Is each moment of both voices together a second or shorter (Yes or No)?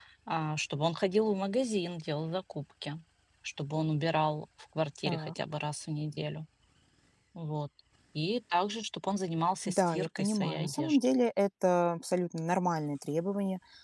No